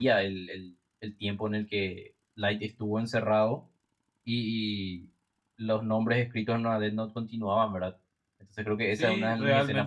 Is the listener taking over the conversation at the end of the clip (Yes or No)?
Yes